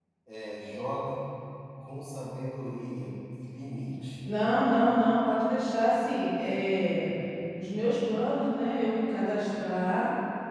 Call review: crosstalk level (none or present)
none